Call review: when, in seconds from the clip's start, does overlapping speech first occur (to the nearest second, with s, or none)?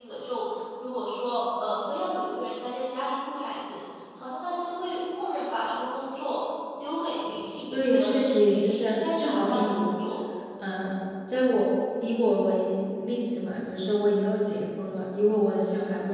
8 s